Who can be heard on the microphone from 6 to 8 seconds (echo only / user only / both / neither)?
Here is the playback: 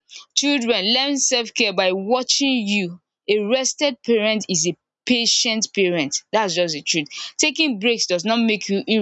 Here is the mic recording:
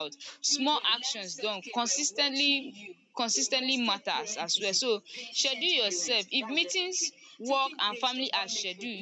both